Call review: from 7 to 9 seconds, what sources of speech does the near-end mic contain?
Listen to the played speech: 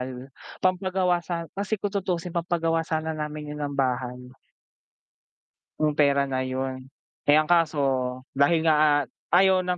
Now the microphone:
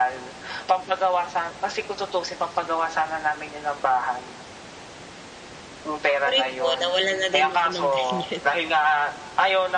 both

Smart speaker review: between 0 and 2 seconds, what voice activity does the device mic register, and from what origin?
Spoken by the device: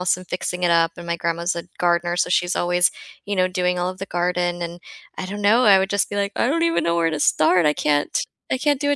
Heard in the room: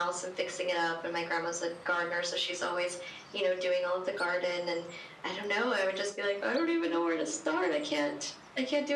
echo only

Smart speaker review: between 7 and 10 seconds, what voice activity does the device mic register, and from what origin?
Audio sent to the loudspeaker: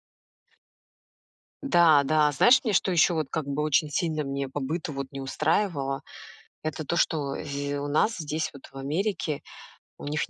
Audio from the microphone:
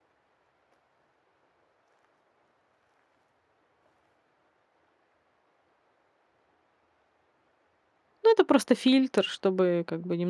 user only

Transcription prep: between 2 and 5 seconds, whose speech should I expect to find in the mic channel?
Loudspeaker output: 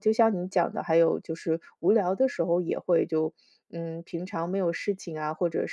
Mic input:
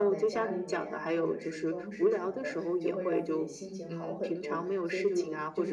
both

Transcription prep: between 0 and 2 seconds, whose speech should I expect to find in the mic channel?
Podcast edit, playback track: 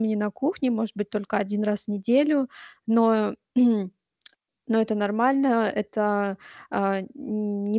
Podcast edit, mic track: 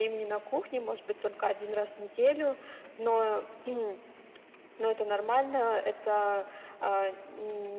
echo only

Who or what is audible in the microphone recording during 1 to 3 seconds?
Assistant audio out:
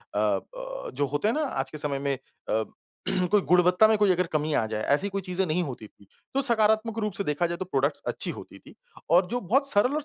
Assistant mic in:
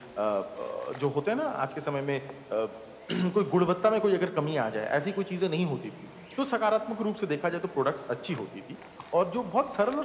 echo only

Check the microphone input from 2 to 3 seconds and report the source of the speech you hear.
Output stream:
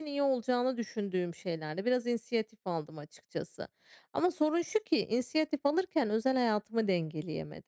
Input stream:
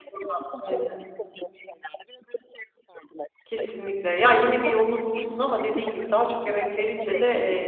echo only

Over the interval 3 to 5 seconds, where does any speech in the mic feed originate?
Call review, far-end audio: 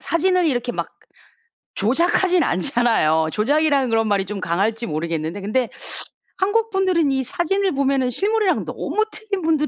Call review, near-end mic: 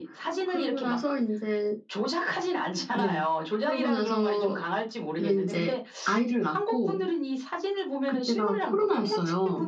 both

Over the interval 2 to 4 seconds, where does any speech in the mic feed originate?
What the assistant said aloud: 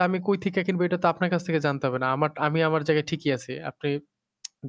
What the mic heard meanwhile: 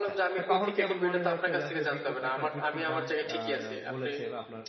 both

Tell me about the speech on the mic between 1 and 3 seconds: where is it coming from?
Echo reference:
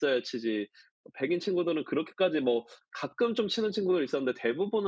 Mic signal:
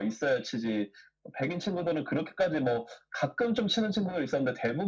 echo only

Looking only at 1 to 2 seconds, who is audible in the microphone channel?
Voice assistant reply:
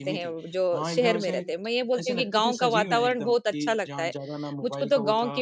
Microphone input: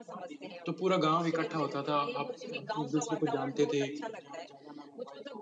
both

